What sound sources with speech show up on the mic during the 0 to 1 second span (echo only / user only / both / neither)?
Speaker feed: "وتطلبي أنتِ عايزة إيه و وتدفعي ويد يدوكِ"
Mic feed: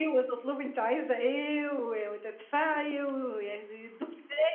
echo only